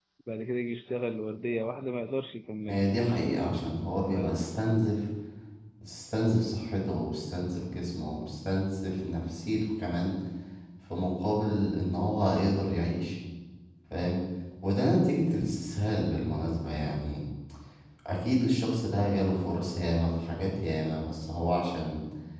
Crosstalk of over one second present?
No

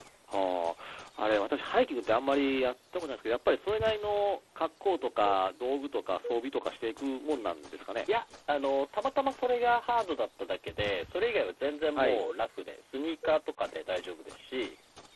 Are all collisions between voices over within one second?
Yes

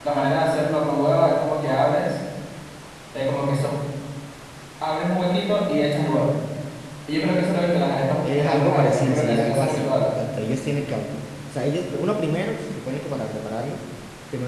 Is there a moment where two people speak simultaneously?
Yes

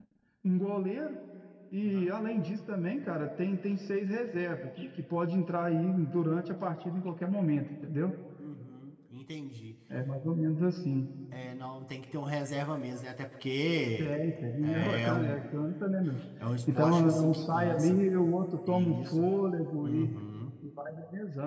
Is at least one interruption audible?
Yes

